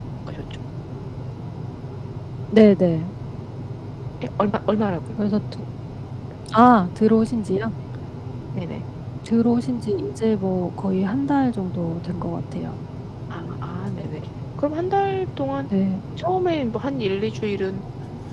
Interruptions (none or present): none